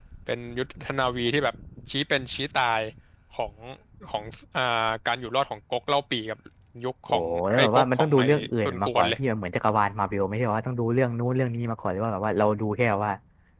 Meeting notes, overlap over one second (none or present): present